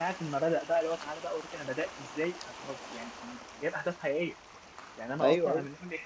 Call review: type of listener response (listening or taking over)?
listening